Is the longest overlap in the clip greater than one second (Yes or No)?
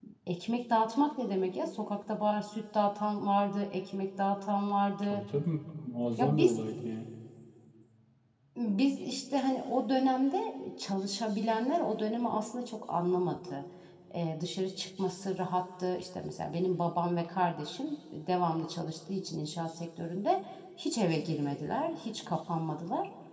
No